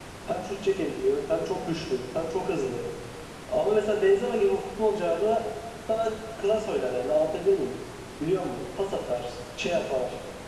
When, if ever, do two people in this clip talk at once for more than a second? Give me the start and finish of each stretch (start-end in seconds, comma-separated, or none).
none